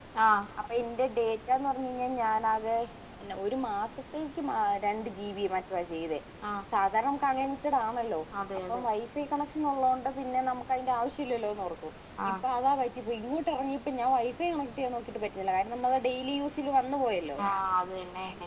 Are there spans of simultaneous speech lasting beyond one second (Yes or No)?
No